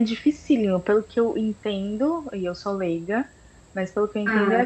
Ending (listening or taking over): listening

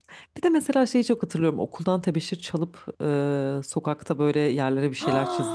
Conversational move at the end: taking over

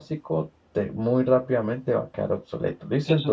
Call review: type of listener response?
taking over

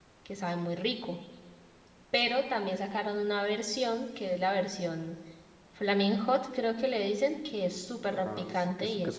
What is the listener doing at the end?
taking over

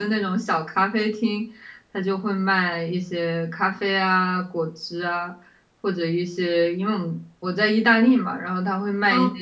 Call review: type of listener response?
listening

